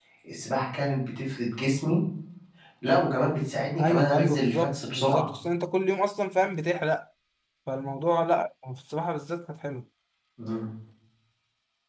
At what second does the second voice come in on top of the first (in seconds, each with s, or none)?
3.8 s